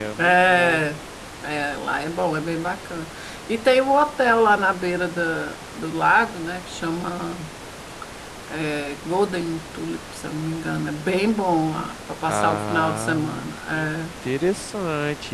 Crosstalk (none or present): present